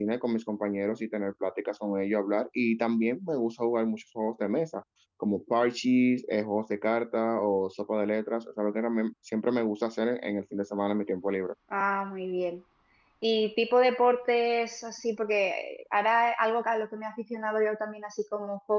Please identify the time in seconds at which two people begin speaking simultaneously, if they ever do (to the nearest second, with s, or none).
none